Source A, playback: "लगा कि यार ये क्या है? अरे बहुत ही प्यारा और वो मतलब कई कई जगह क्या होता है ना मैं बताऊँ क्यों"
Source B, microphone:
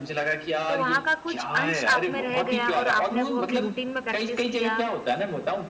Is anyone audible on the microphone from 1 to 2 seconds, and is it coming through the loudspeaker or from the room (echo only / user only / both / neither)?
both